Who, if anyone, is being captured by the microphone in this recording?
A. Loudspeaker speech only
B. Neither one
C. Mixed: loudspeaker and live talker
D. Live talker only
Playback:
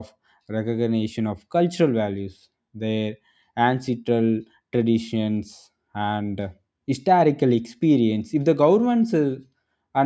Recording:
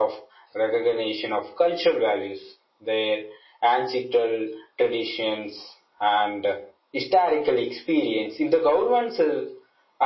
A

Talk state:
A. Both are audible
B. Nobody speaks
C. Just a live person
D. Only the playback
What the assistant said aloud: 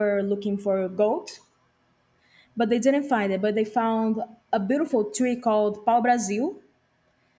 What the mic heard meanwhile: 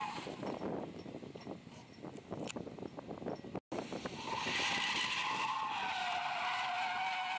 B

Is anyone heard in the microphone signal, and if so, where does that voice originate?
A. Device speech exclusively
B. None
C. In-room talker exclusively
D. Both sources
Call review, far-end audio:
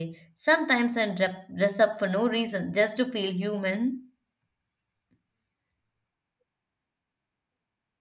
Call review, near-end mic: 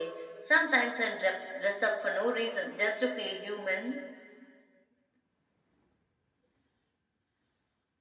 A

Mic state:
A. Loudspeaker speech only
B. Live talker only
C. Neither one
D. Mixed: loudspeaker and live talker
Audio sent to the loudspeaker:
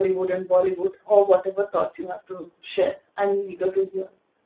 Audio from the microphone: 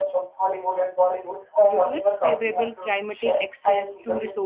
D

